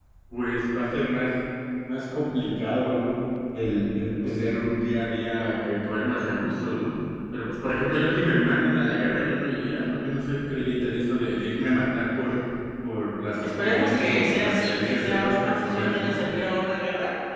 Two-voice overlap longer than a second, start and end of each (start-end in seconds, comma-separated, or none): 13.4-16.2